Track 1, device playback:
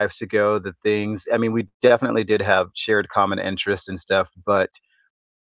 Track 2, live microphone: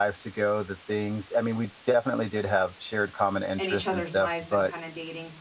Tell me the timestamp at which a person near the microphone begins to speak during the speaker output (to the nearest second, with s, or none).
4 s